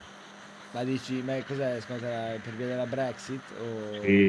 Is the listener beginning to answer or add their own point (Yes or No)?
Yes